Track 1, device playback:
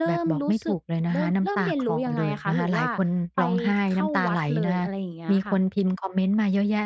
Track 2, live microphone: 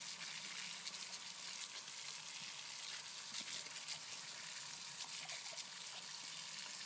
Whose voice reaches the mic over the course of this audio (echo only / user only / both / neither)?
neither